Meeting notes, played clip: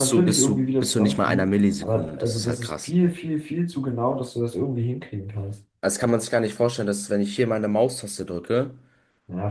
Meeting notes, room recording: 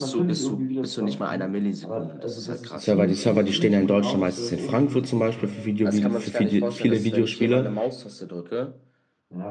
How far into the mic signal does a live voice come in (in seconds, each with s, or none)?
2.7 s